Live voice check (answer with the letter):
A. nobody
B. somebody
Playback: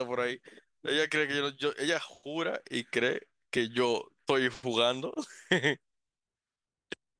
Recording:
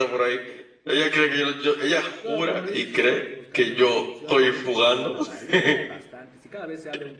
B